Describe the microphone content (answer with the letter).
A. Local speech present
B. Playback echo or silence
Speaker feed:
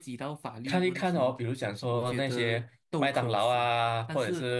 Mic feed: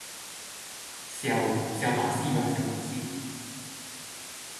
A